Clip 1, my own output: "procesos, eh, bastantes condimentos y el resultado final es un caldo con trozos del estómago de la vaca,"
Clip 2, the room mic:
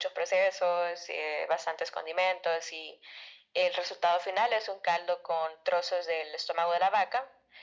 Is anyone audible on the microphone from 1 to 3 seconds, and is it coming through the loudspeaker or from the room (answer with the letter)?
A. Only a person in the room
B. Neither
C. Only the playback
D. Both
C